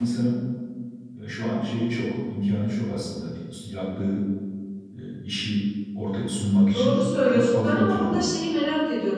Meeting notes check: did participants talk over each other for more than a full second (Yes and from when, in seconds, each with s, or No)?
Yes, from 6.7 s